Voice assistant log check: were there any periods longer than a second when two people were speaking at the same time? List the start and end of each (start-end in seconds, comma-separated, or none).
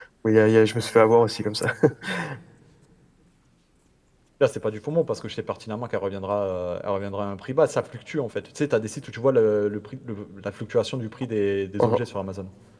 none